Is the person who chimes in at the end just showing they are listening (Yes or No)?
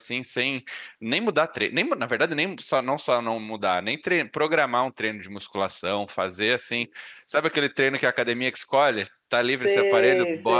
No